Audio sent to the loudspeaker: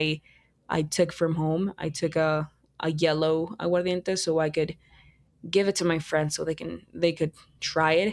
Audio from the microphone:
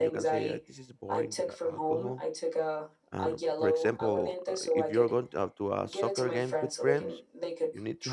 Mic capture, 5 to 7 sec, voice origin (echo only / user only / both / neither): both